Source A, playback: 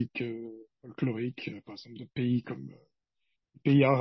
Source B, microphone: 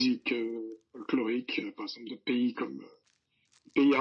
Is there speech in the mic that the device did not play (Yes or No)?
No